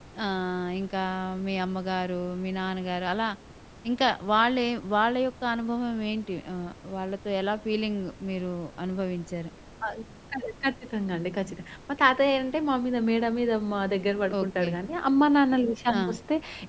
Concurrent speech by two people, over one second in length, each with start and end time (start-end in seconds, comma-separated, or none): none